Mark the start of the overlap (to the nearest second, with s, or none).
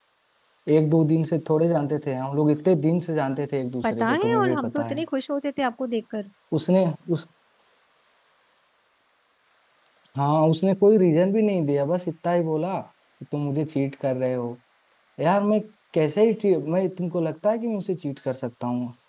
4 s